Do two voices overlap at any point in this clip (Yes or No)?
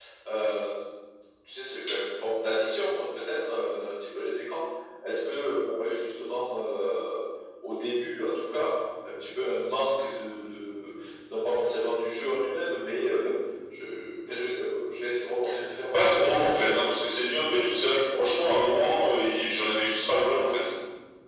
Yes